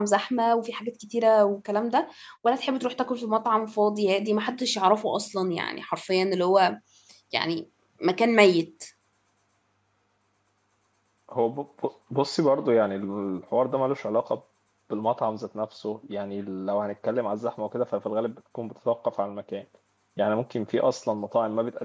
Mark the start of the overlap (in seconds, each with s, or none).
none